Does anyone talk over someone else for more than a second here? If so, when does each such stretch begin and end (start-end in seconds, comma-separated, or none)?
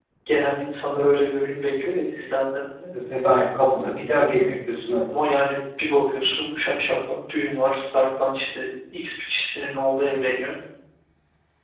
none